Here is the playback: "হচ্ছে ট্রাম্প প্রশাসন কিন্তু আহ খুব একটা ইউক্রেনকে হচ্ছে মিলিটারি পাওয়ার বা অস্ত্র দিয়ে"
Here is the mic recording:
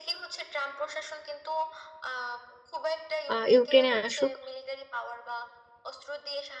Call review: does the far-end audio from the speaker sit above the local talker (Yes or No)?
No